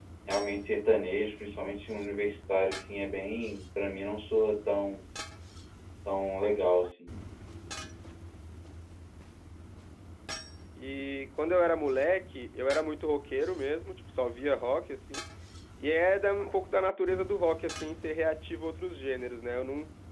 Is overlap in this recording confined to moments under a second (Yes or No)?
Yes